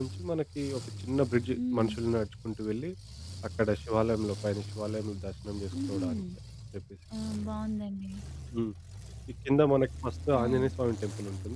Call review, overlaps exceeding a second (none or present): none